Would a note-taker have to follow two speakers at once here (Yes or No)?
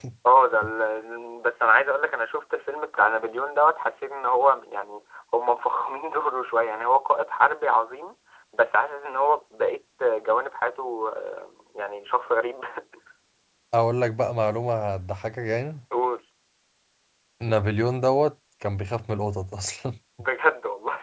No